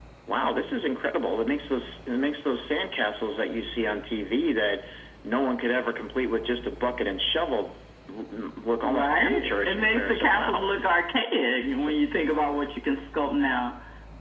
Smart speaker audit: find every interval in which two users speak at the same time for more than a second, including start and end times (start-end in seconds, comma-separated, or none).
8.8-10.6